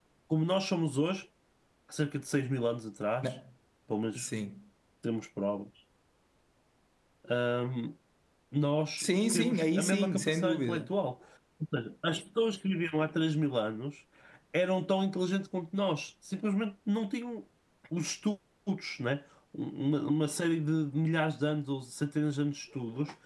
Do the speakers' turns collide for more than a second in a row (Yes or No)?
Yes